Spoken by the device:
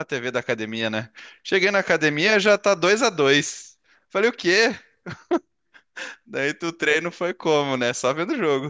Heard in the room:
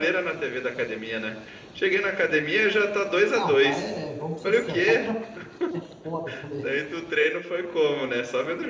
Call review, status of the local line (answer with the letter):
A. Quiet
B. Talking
B